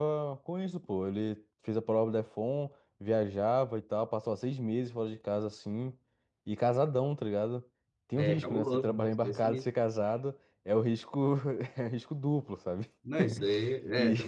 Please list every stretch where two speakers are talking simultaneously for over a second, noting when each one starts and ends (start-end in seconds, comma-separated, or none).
8.2-9.7